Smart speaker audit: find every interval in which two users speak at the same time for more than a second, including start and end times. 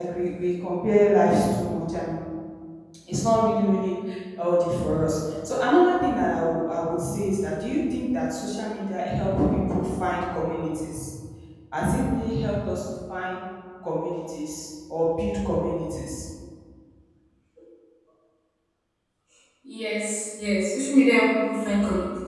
none

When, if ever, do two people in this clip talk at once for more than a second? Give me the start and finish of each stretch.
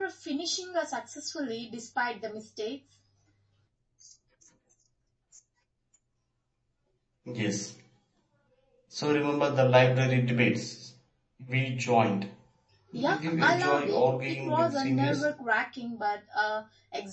12.9-15.3

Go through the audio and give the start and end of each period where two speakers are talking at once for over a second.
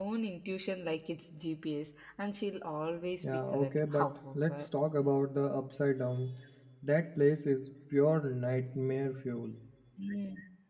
3.2-4.7

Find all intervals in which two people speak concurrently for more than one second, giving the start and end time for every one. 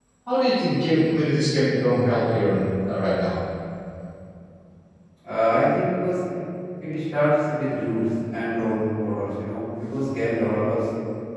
none

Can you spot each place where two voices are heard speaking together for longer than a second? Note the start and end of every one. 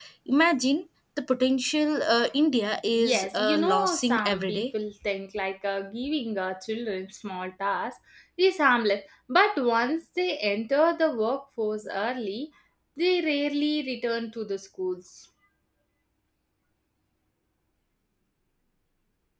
3.0-4.6

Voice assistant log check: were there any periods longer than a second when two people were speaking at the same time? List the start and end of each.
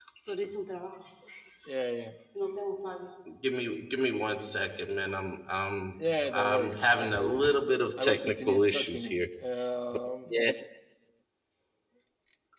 6.0-7.4, 8.0-9.3

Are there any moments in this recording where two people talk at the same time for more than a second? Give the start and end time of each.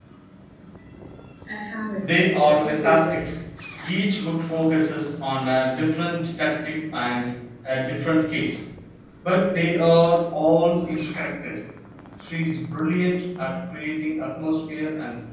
2.0-3.2

